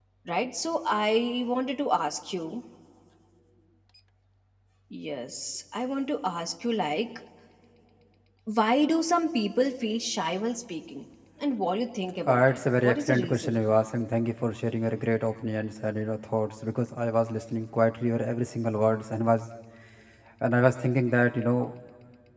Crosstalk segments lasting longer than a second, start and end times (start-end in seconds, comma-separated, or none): 12.3-13.6